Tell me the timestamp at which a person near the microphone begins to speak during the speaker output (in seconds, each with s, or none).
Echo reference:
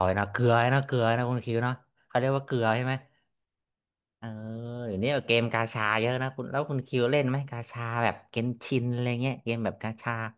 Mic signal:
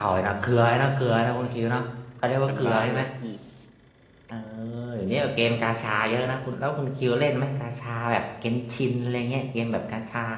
2.4 s